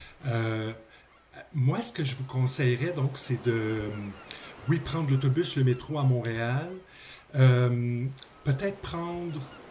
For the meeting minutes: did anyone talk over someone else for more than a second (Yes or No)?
No